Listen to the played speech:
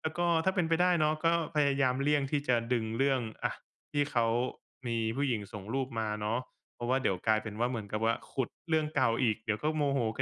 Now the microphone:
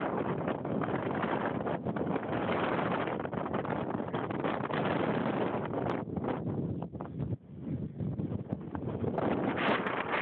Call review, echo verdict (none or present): none